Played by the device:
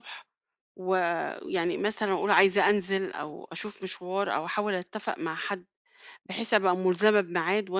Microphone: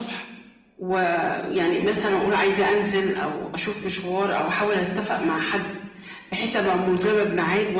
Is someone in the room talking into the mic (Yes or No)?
No